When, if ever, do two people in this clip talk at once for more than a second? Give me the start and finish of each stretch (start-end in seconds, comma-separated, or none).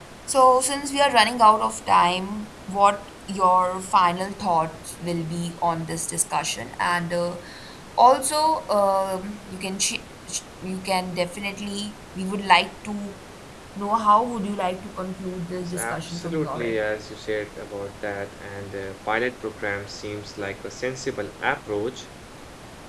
15.6-16.8